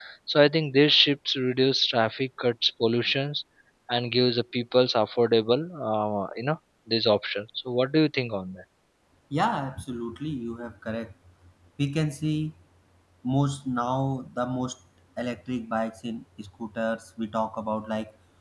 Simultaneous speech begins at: none

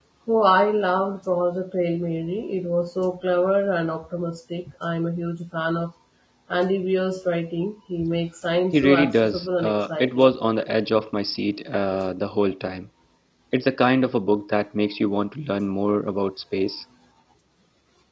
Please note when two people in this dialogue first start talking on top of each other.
8.7 s

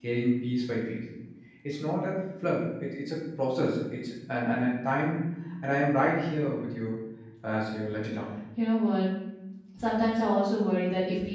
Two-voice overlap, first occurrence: none

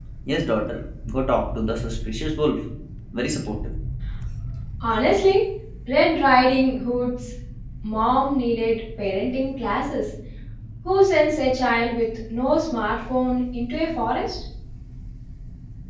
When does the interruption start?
none

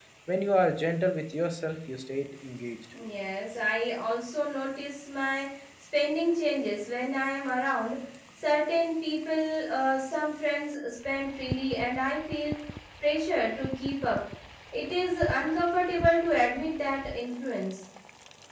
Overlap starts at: none

